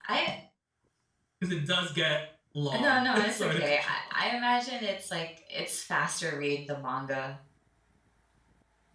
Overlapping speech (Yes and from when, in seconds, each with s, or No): Yes, from 2.7 s